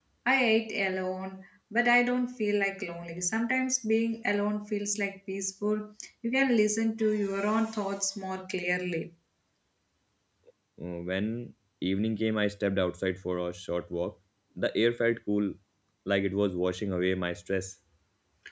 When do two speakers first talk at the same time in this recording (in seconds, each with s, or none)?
none